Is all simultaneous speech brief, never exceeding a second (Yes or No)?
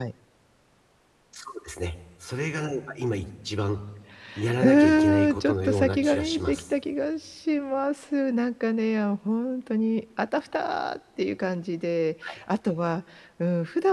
No